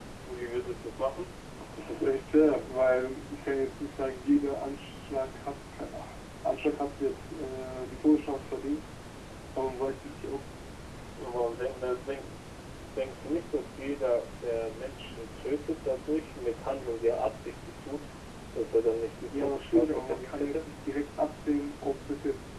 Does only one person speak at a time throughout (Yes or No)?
No